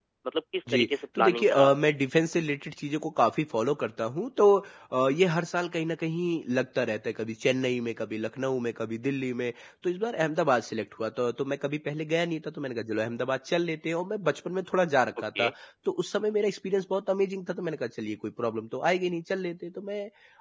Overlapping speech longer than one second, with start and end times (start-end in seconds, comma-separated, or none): 0.7-1.9